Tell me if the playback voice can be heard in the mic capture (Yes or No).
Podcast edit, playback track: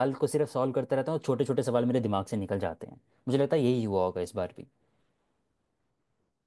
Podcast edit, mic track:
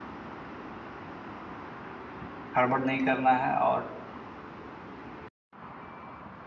No